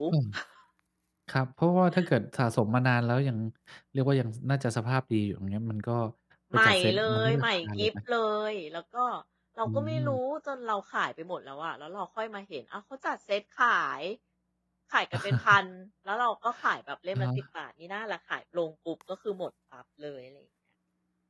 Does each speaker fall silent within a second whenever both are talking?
No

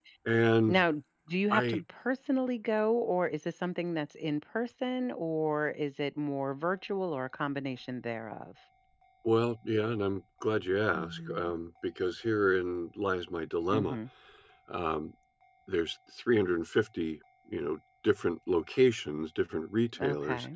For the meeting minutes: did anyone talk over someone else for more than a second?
No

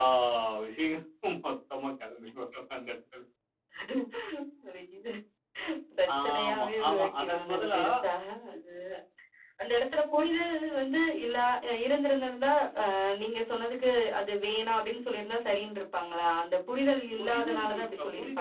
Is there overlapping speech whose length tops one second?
Yes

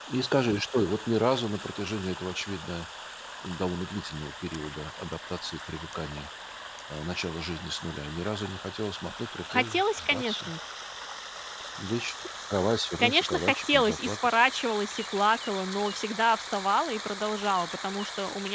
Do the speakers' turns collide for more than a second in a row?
Yes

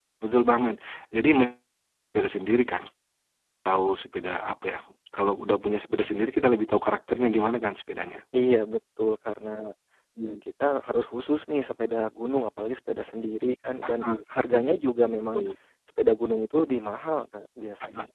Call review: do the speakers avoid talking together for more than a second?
Yes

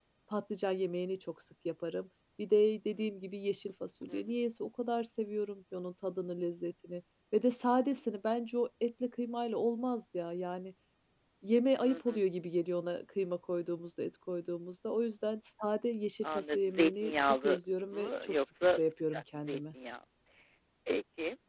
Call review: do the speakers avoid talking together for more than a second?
No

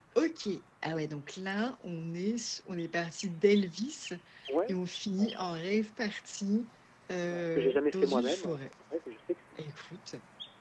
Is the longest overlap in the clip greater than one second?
Yes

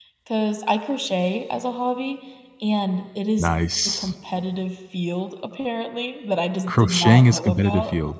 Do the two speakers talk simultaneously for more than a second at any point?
Yes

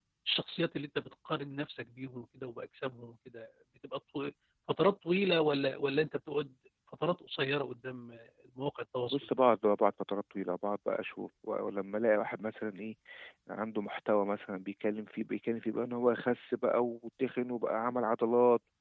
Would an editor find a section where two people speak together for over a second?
No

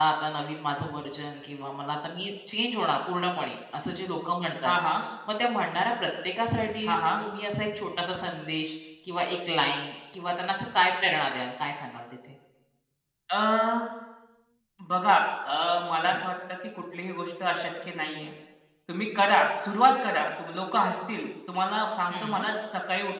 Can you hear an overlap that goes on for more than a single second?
No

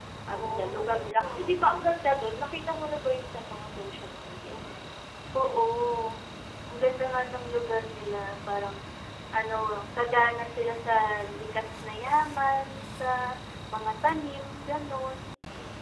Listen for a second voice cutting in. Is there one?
Yes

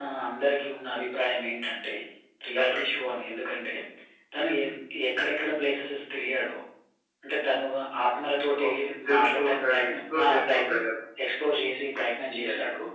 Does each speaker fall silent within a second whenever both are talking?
No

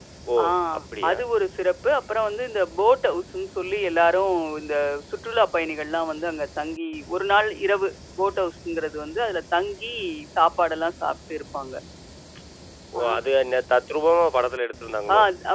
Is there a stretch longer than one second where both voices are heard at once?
No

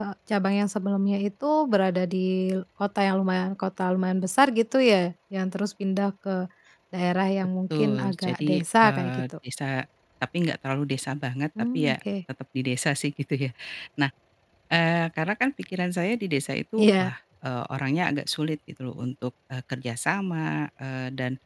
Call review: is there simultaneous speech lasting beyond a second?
Yes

